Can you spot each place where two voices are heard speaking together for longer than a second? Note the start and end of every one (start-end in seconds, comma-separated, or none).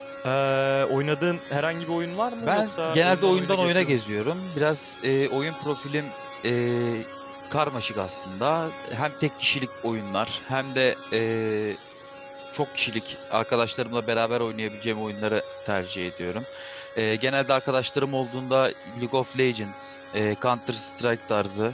2.4-4.0